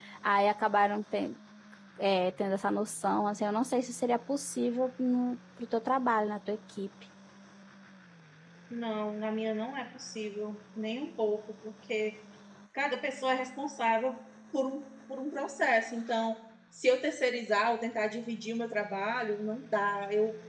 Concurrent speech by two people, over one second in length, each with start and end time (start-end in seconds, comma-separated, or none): none